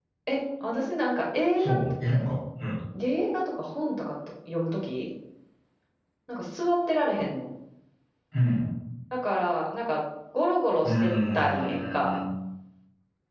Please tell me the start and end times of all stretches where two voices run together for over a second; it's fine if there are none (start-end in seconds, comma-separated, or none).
10.8-12.1